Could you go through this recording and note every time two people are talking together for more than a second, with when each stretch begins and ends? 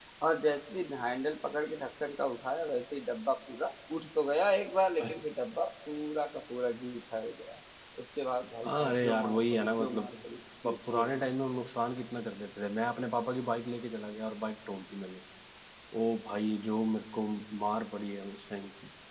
8.6-10.1

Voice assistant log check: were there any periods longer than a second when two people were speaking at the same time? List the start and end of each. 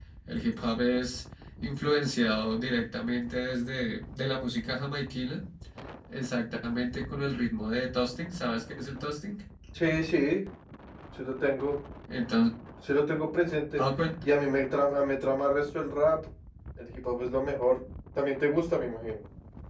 none

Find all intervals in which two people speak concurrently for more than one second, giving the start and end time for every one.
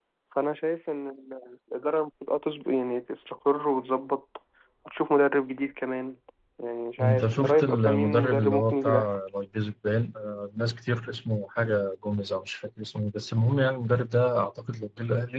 7.0-9.1

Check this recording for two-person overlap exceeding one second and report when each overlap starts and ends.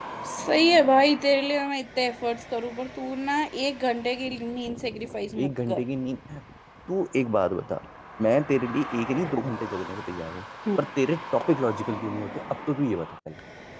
none

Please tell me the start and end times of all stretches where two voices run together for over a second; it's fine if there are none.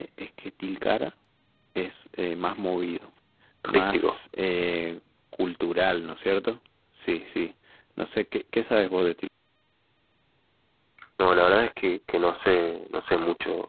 none

